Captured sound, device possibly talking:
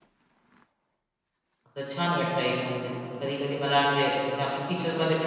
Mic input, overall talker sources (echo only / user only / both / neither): user only